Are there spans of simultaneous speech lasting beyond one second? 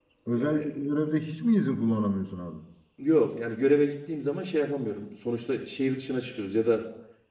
No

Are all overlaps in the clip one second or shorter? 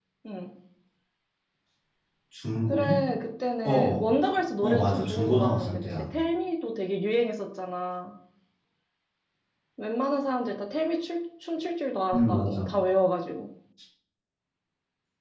No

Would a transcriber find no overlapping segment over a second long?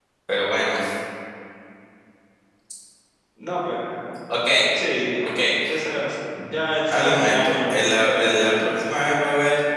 No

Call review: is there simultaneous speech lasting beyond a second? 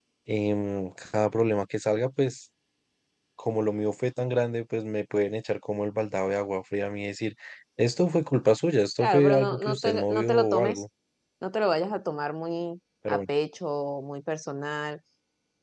Yes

